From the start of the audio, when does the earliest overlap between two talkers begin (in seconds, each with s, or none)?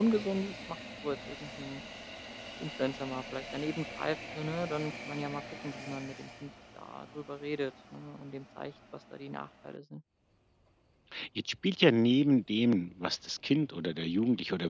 none